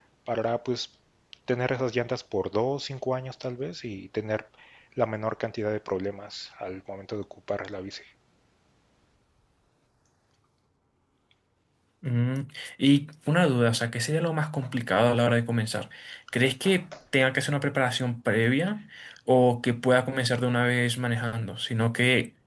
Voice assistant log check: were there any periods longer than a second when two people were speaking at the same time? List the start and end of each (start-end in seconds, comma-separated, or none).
none